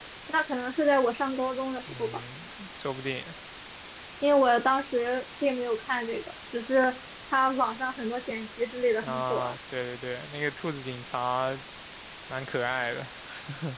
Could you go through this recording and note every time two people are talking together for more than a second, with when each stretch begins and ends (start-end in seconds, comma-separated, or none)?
none